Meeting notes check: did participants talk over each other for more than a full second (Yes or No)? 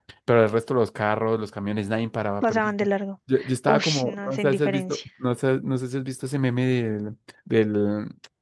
Yes